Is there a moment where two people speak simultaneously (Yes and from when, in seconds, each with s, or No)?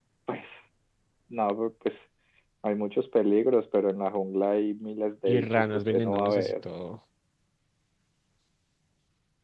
Yes, from 5.3 s